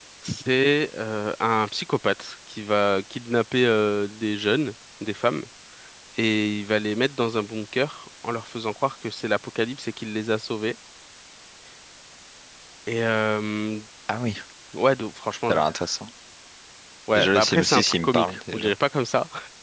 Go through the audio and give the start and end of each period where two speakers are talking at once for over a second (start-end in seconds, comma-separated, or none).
17.1-18.7